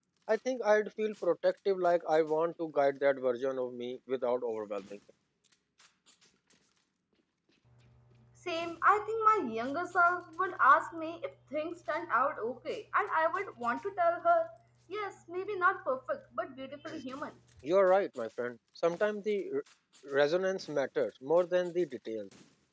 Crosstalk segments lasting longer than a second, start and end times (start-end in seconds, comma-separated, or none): none